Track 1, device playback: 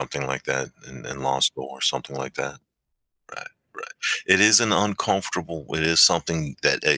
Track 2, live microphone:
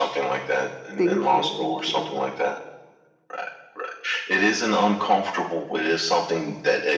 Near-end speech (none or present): present